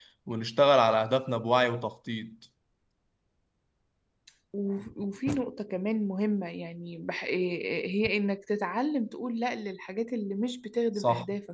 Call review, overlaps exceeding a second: none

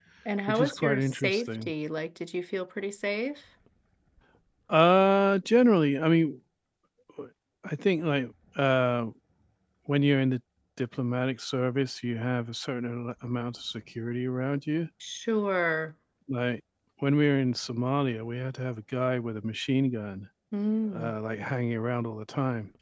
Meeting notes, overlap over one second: present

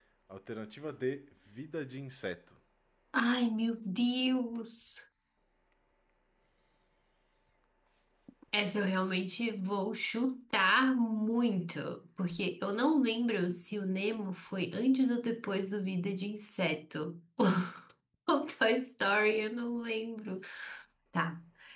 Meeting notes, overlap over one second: none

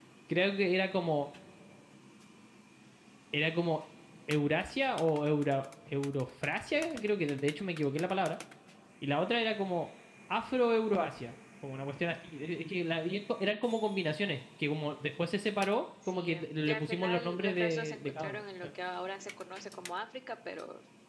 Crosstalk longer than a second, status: present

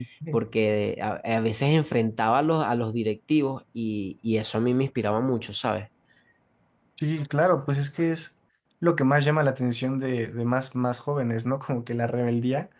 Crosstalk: none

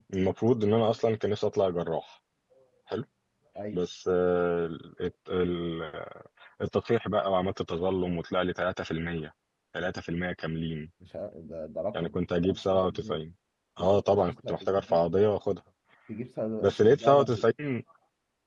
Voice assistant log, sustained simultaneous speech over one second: present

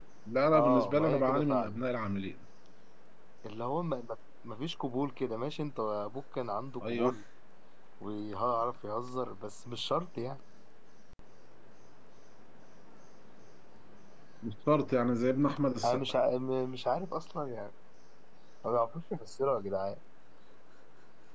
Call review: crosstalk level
present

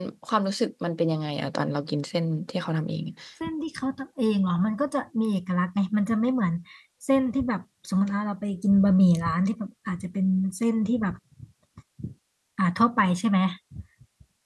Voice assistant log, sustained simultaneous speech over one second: none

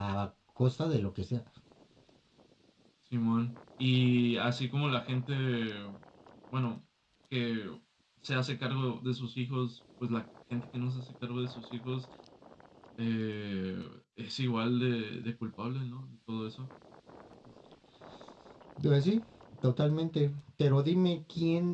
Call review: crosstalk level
none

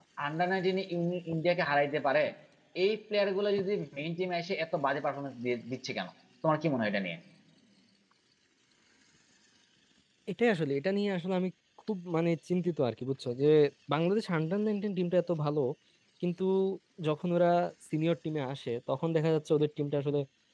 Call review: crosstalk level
none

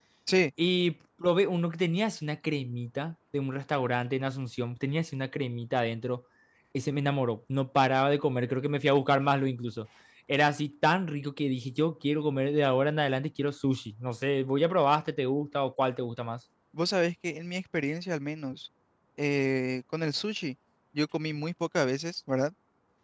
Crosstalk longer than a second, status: none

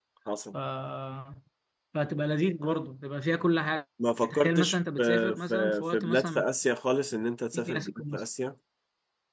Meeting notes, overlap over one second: present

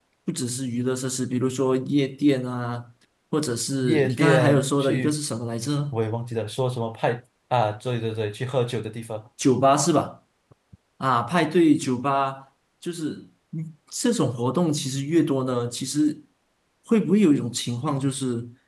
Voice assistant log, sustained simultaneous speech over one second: present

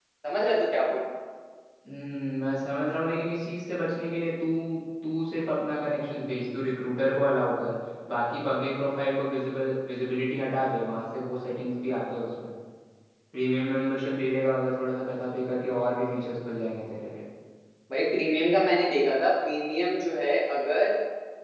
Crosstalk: none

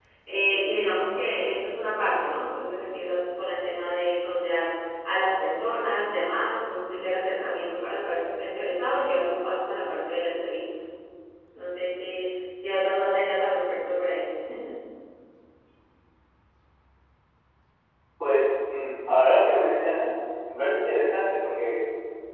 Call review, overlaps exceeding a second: none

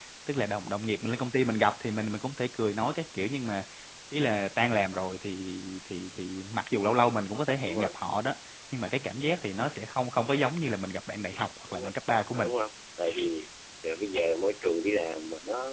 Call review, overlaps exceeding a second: none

